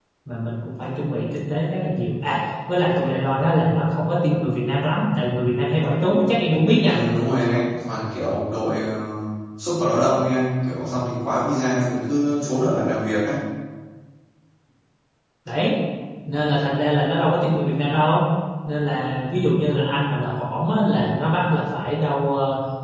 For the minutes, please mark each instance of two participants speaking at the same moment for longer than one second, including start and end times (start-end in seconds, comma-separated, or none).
none